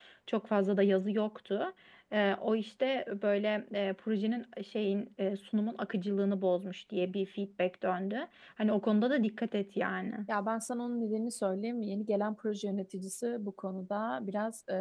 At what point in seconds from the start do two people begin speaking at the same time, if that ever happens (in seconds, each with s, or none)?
none